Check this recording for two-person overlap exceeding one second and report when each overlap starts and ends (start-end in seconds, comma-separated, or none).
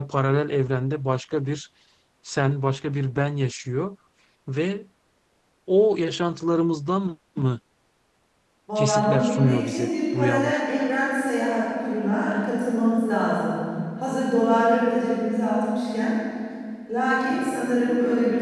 8.8-10.6